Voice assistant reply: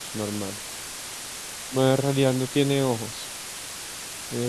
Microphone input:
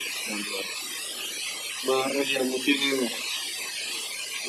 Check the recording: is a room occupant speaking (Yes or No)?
No